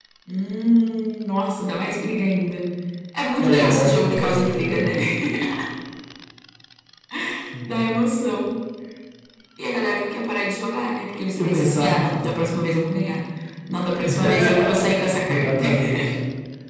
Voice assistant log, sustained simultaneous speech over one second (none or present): present